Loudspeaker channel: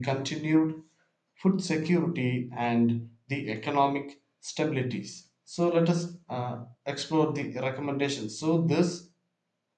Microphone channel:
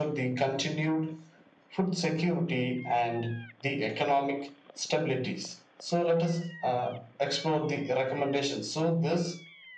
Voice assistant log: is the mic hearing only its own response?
Yes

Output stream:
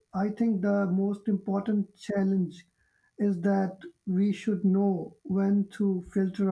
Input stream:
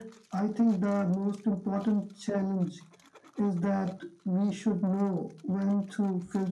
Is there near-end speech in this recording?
No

